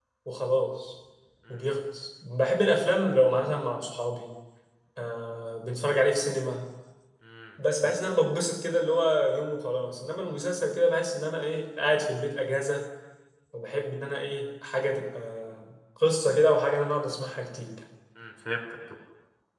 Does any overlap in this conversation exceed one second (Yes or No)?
No